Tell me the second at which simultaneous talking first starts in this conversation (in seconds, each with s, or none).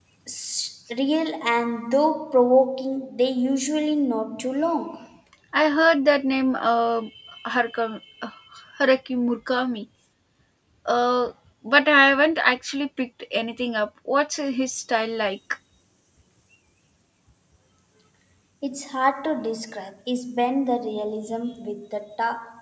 none